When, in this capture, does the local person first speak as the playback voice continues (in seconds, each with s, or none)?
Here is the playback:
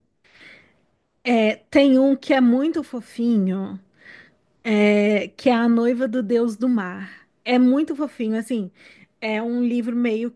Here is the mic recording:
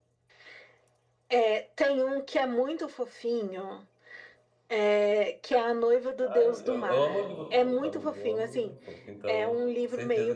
6.3 s